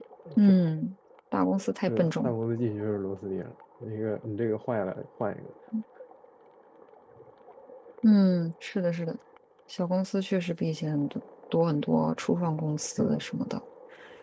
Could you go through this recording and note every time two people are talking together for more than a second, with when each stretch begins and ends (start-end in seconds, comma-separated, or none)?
none